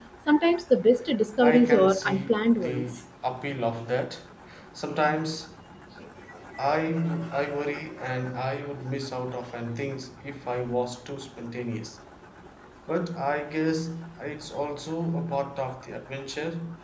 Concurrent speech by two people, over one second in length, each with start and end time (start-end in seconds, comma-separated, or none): 1.4-2.9